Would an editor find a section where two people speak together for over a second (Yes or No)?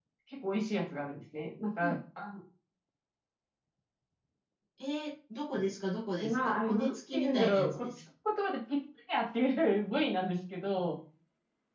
Yes